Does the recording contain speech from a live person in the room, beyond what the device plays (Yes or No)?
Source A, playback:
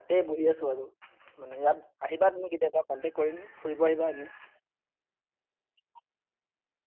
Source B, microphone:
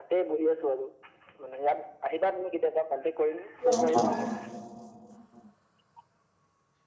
Yes